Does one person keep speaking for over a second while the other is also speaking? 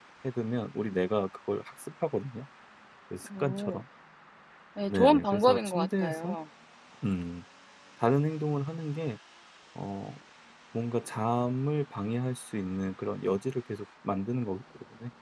Yes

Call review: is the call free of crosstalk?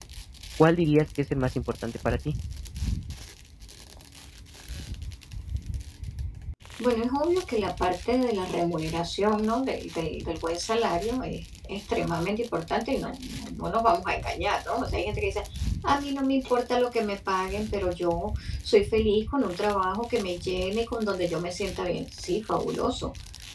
Yes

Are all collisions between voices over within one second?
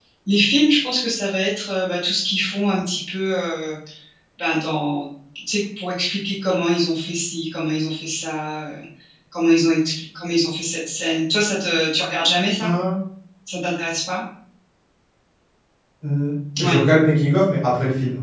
Yes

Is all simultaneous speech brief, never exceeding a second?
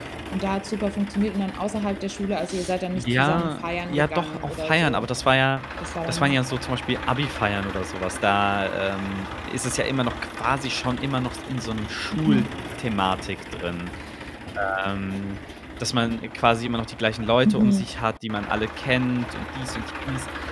No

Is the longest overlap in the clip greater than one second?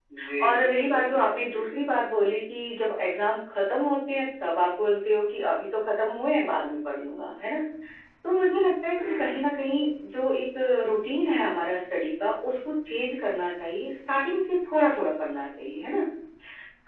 Yes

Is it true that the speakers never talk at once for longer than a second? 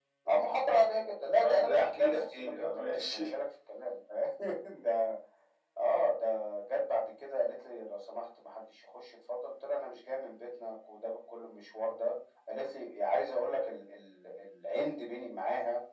No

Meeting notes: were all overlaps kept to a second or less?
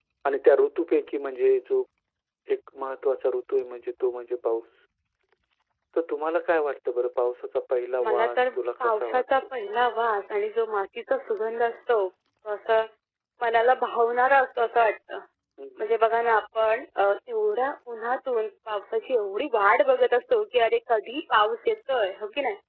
No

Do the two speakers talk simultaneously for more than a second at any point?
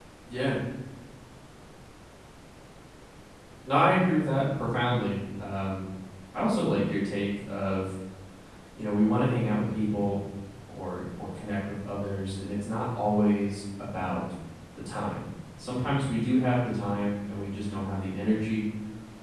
No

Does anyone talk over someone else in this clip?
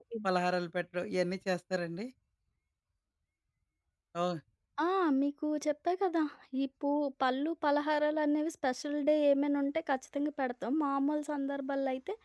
No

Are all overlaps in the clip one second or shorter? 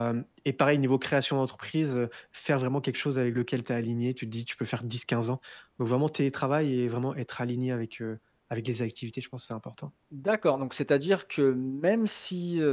Yes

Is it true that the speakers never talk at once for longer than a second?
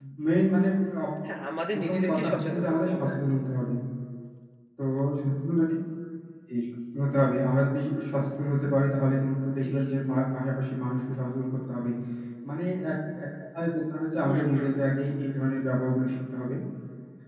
No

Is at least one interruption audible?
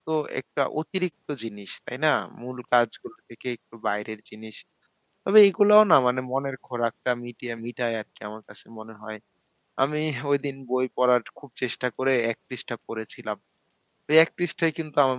No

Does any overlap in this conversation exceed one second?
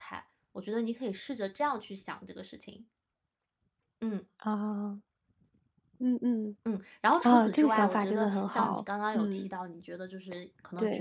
Yes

